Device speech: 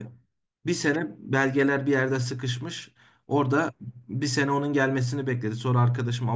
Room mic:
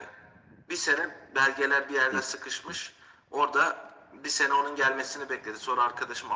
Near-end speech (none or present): present